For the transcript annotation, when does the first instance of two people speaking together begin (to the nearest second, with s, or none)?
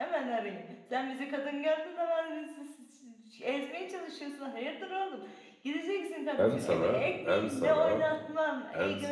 6 s